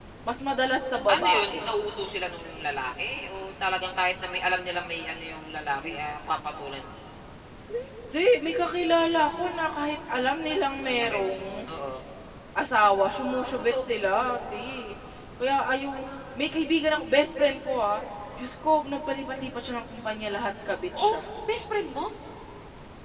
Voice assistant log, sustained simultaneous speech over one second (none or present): none